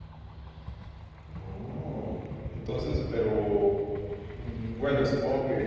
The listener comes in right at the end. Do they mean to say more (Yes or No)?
No